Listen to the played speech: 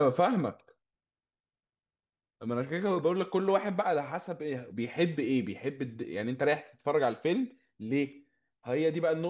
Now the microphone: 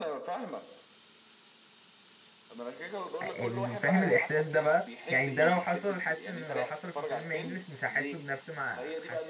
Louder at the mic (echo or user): user